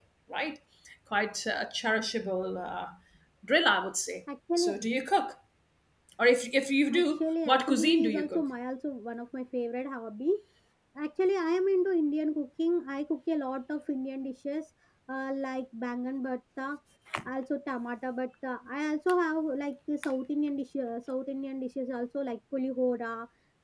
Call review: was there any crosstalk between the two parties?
Yes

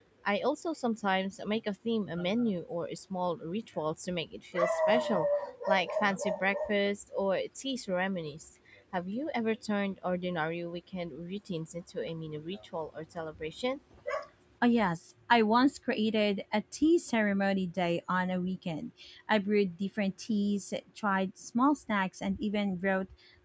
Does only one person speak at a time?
Yes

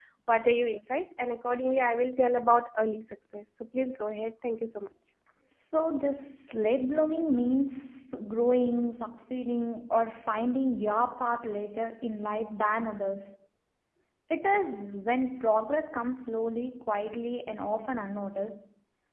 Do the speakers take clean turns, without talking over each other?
Yes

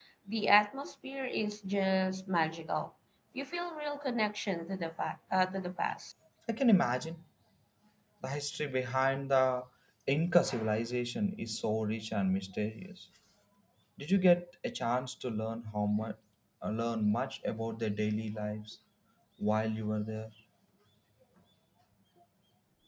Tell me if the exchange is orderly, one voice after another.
Yes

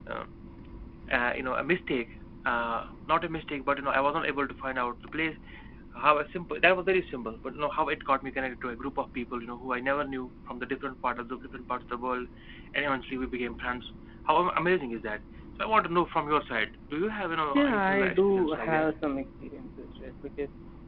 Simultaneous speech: Yes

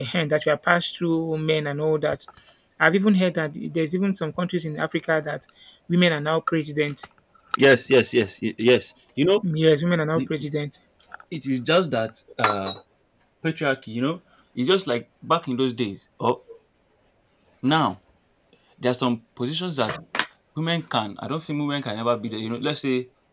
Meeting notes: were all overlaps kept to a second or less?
Yes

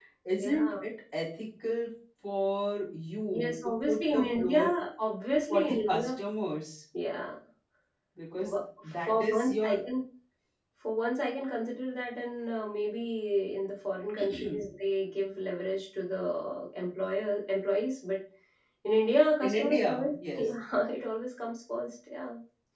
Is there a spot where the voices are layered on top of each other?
Yes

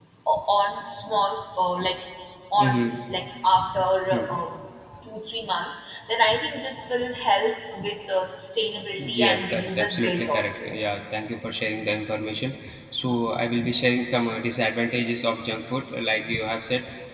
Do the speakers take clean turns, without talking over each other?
No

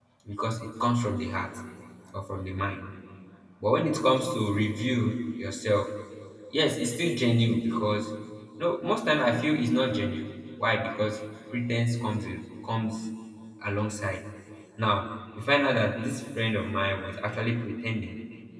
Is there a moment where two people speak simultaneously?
No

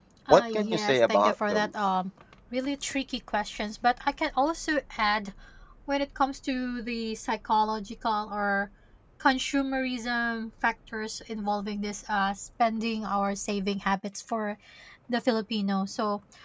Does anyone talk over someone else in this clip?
Yes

